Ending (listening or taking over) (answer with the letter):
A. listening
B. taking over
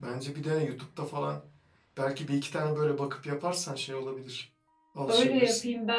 B